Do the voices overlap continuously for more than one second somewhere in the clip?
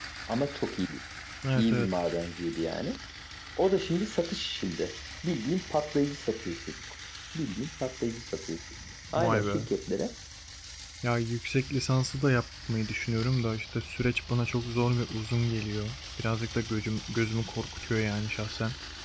No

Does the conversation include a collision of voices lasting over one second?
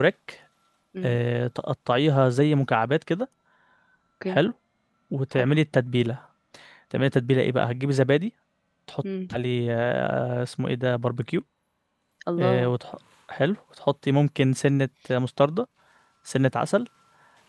No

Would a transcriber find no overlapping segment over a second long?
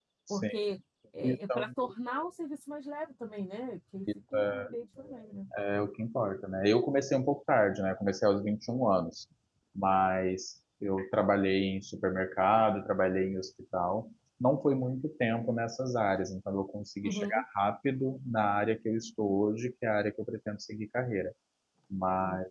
Yes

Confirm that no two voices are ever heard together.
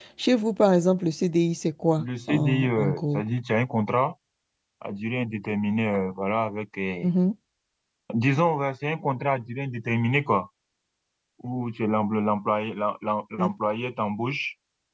No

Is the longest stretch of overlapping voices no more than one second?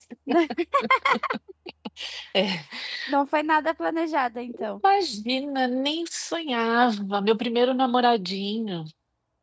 Yes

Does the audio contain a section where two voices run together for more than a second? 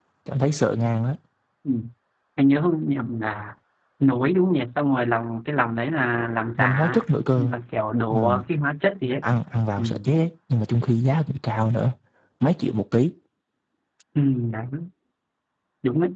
No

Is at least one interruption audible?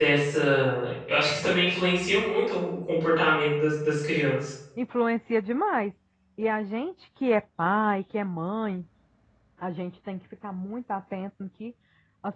No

